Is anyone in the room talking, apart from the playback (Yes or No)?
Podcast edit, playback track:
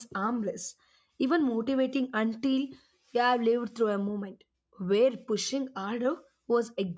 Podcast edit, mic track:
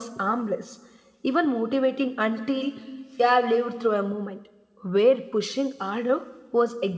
No